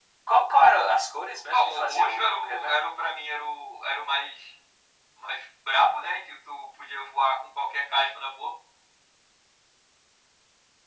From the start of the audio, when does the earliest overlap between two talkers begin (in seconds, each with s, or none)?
1.5 s